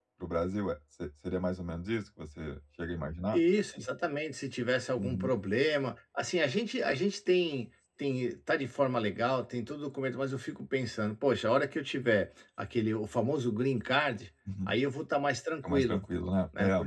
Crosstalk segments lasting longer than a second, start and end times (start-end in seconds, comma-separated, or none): none